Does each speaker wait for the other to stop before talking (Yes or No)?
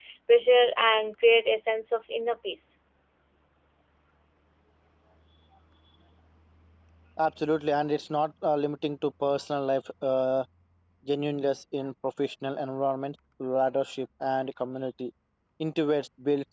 Yes